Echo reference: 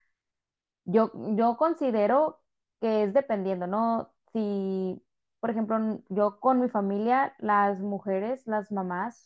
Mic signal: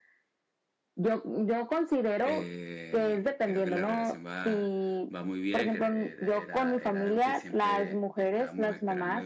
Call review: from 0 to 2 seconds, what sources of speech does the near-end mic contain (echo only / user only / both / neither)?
echo only